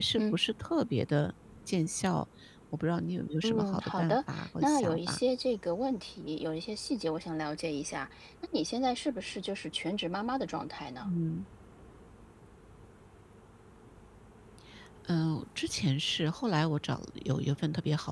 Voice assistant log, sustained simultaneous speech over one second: present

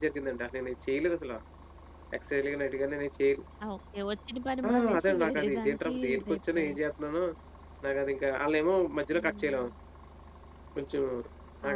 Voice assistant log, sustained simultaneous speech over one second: present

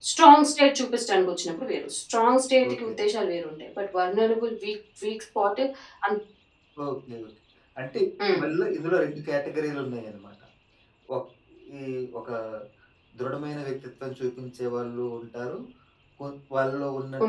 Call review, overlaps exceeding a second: none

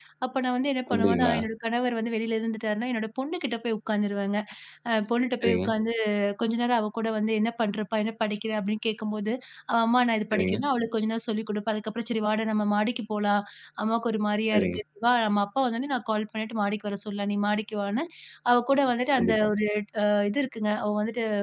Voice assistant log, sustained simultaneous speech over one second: none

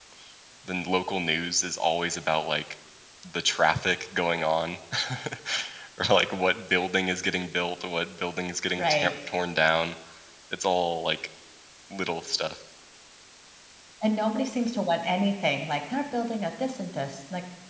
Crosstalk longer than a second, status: none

